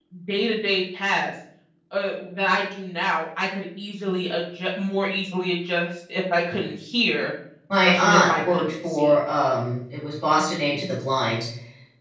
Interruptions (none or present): present